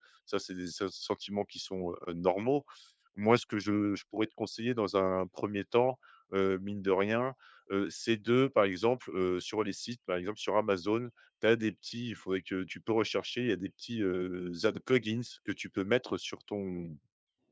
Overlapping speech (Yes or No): No